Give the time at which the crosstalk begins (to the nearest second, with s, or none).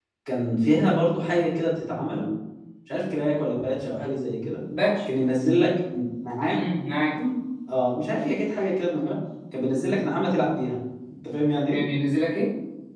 none